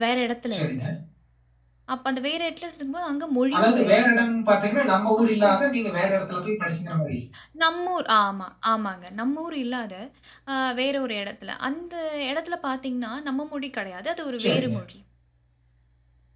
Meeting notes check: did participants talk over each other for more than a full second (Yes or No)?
No